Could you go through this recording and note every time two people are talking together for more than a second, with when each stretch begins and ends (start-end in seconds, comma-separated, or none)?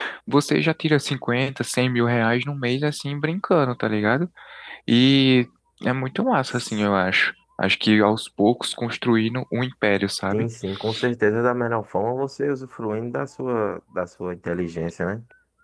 none